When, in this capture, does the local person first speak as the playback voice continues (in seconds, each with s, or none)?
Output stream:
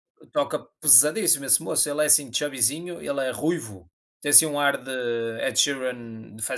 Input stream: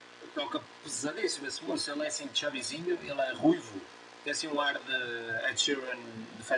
none